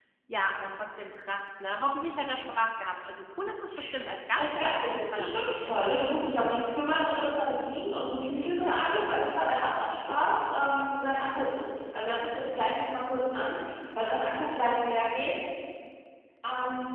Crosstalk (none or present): present